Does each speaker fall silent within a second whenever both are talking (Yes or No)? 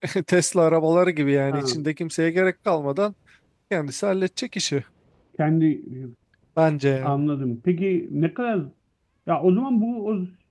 Yes